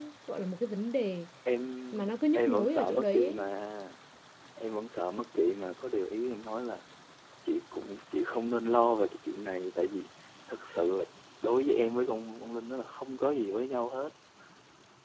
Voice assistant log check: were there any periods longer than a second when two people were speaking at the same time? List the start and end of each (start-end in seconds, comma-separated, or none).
1.9-3.5